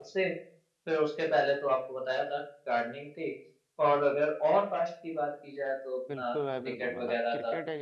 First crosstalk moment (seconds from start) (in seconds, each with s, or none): 6.1 s